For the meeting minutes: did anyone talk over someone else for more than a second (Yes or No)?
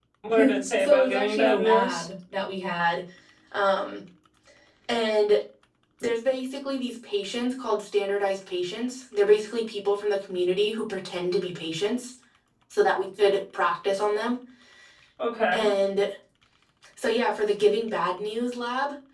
Yes